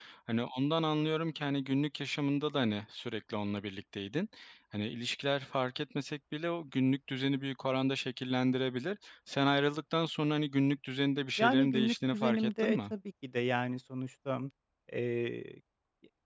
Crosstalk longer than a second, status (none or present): present